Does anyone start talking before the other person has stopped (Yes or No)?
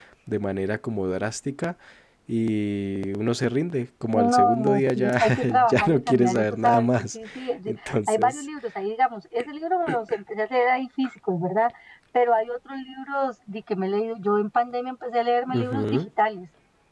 Yes